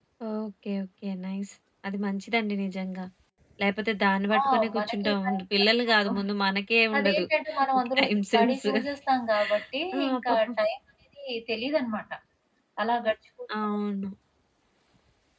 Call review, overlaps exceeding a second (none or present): present